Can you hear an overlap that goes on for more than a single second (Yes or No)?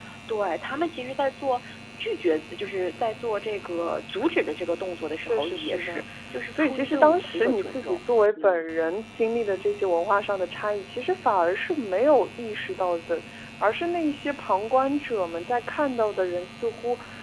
Yes